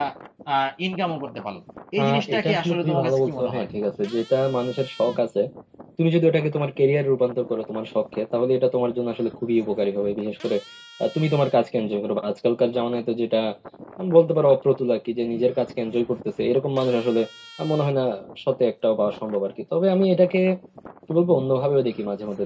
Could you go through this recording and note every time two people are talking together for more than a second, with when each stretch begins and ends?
2.0-3.6

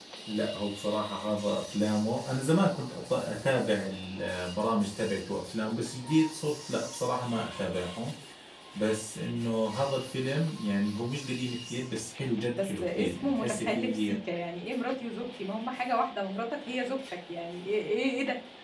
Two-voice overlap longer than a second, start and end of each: 12.6-14.2

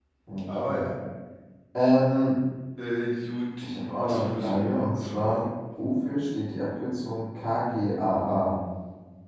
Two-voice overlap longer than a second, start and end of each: 3.6-5.4

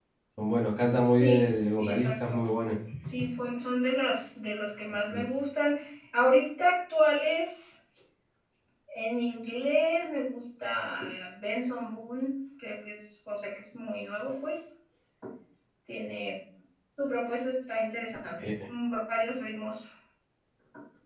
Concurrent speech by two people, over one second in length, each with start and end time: 1.2-2.4

